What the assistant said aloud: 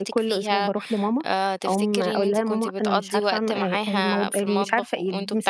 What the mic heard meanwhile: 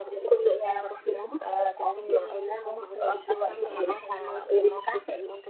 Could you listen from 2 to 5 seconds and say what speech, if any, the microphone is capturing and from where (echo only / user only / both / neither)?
echo only